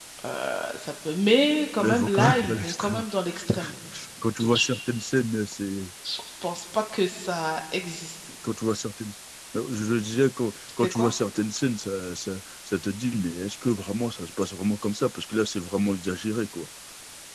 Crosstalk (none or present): present